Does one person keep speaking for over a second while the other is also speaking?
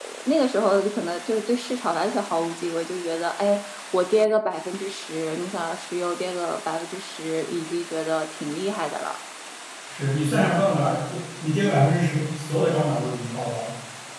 No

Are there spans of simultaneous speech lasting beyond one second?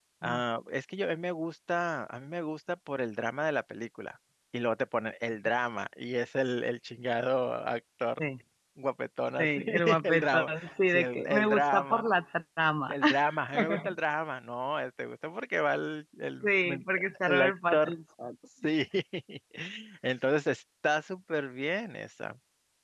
Yes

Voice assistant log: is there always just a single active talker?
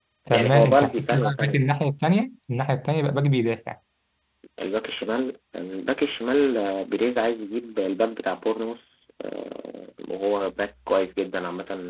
No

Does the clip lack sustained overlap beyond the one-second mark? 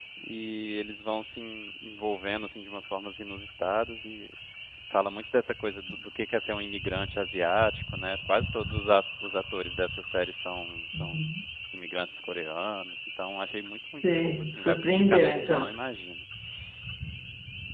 No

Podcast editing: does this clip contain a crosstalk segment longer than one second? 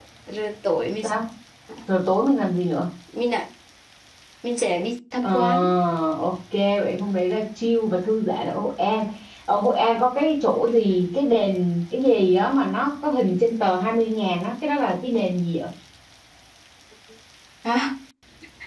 No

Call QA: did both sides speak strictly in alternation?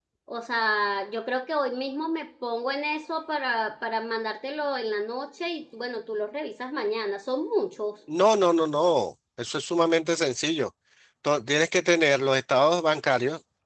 Yes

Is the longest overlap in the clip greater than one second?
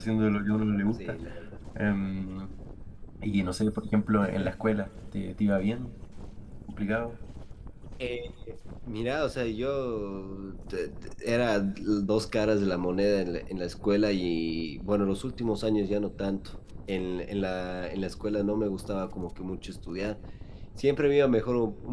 No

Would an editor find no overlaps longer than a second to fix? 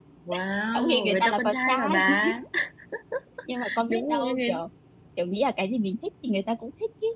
No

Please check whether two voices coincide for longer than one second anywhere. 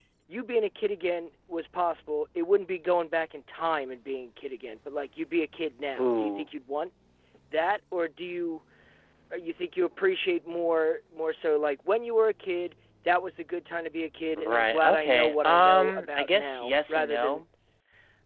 Yes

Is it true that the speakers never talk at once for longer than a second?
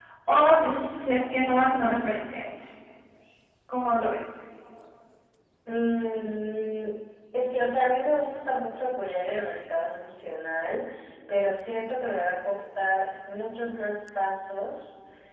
Yes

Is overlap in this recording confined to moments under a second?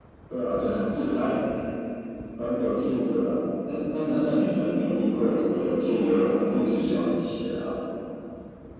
No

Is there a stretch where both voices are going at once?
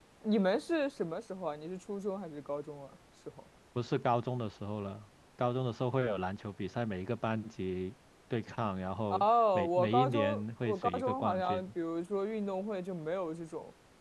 Yes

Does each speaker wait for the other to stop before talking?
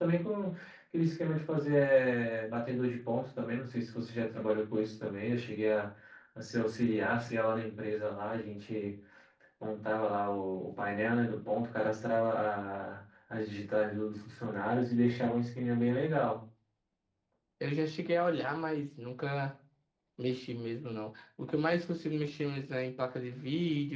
Yes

